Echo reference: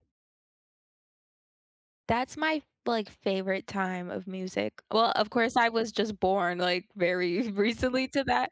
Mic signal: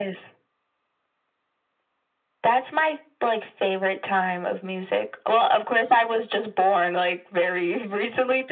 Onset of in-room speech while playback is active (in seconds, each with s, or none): none